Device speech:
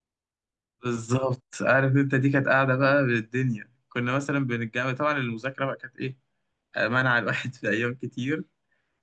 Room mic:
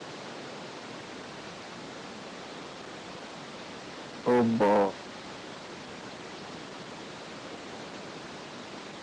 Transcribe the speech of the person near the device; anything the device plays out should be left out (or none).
اوبا